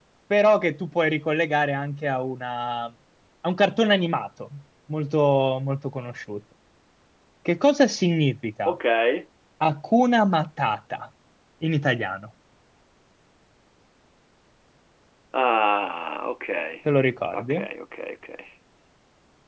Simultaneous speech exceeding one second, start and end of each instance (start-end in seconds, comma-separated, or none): none